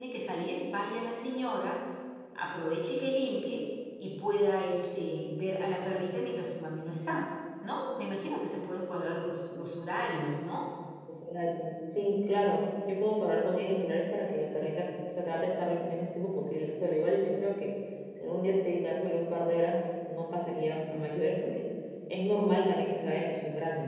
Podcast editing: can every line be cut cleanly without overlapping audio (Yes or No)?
Yes